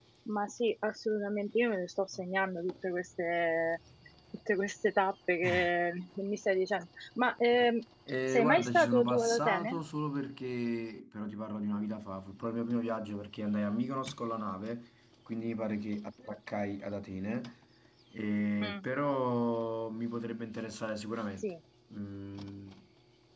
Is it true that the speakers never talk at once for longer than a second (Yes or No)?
No